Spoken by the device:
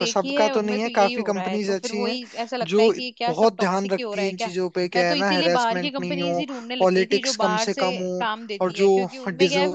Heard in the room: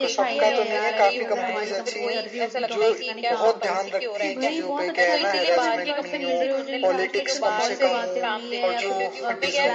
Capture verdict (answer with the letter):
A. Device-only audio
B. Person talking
B